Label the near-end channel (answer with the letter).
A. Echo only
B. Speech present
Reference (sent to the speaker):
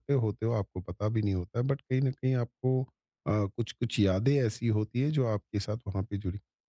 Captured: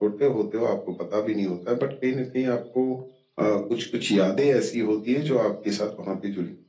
A